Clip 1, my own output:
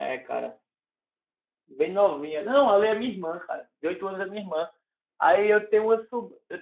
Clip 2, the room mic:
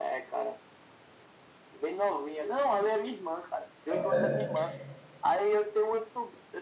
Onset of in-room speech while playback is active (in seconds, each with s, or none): 3.9 s